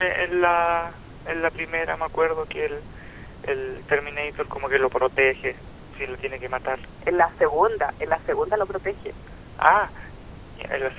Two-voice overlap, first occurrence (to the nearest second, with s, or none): none